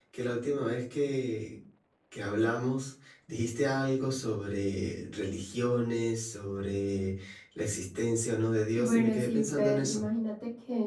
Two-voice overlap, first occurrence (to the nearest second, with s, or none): 9 s